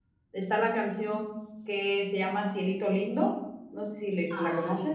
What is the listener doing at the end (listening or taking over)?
taking over